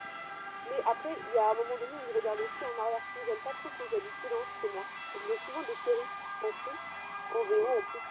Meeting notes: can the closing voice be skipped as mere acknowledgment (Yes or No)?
Yes